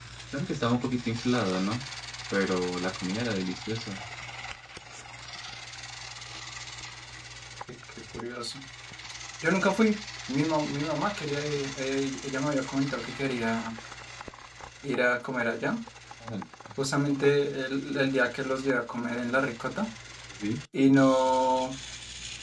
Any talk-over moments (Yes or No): No